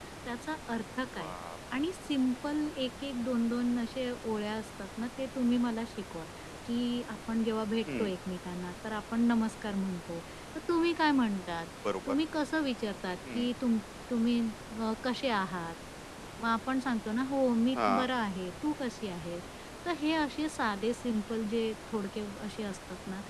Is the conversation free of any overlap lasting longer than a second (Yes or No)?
Yes